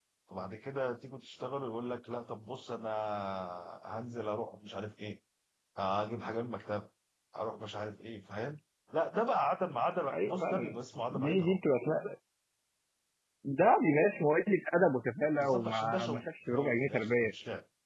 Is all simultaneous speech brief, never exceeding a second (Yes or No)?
No